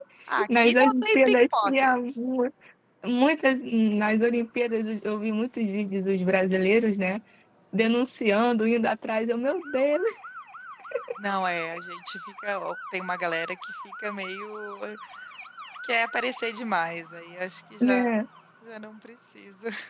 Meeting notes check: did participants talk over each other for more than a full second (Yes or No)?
Yes